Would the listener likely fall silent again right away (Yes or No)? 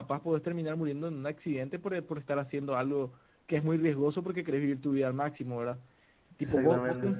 Yes